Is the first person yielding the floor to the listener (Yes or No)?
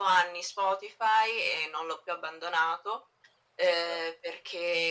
No